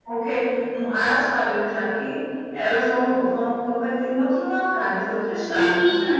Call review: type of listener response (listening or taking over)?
taking over